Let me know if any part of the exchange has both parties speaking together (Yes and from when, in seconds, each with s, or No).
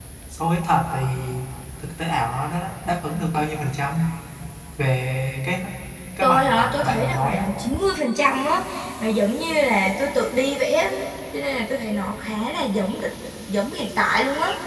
Yes, from 6.2 s